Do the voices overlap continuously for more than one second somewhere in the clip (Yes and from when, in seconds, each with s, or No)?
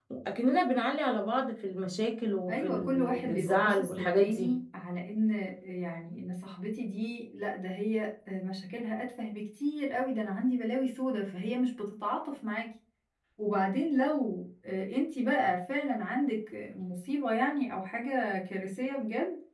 Yes, from 2.5 s